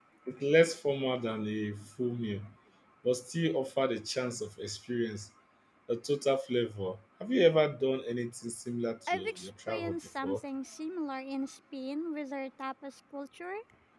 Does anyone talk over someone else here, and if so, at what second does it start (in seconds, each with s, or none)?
9.1 s